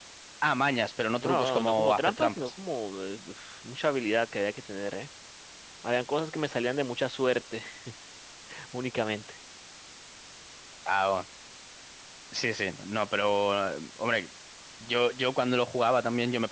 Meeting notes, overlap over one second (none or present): present